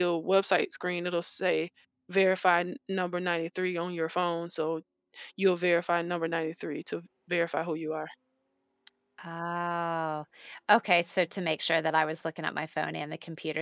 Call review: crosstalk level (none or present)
none